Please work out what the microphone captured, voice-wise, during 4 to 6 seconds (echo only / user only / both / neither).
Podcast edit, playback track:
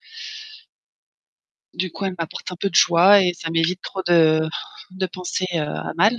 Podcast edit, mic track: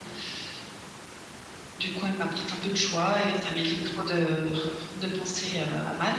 echo only